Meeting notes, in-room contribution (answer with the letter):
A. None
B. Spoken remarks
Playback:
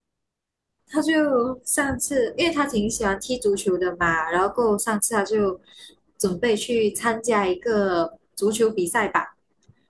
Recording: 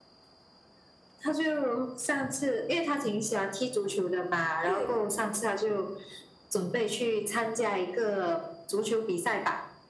B